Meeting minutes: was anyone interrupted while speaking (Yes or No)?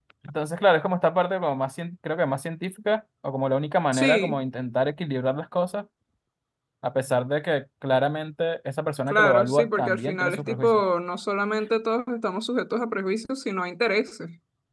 Yes